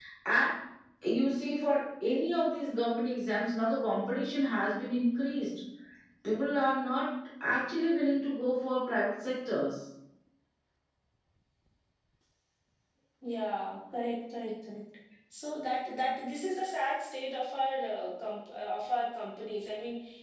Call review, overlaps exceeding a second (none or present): none